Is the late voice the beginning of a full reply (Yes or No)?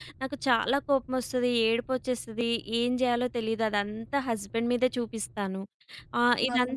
No